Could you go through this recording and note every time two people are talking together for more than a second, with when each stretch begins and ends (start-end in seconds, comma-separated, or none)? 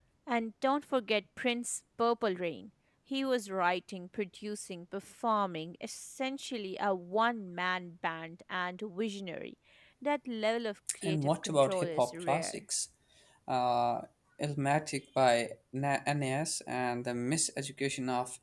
11.0-12.6